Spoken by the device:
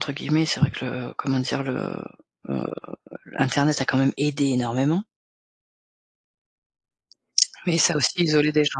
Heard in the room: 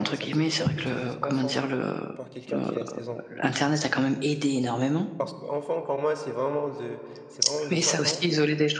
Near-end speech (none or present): present